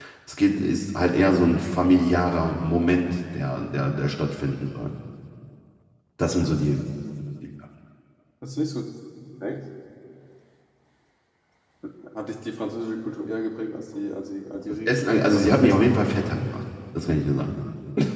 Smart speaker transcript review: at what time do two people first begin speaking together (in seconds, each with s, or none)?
14.9 s